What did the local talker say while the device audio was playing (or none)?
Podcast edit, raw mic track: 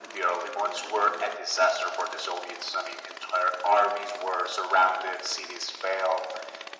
none